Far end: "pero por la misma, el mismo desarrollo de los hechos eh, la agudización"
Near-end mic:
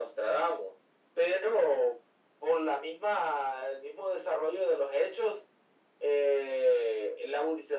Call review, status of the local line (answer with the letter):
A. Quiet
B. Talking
A